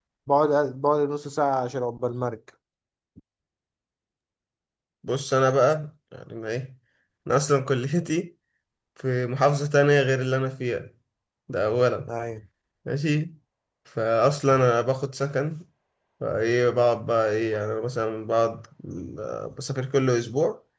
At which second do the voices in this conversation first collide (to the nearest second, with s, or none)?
none